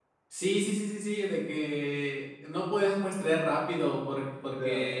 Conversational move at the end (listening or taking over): listening